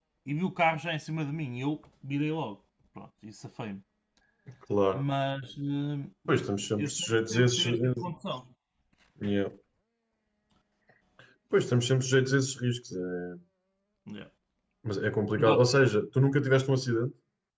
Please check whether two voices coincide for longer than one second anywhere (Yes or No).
Yes